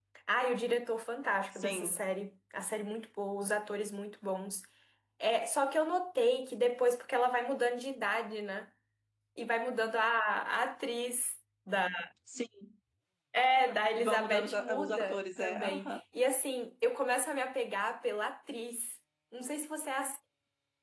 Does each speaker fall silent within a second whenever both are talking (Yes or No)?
No